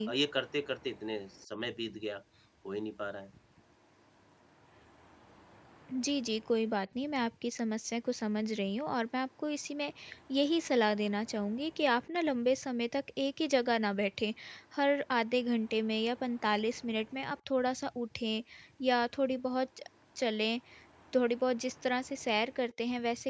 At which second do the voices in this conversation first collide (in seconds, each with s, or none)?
none